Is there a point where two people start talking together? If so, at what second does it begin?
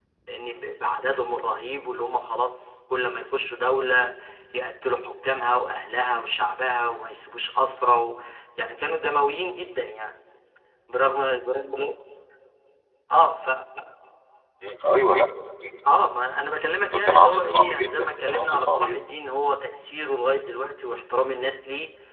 16.9 s

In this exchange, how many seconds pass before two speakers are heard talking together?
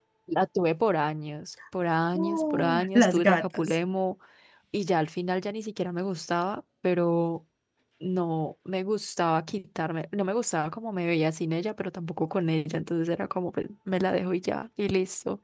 2.1 s

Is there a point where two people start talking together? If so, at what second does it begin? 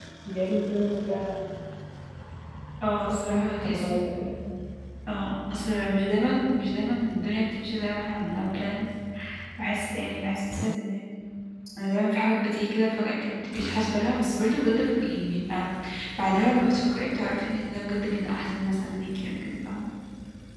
2.9 s

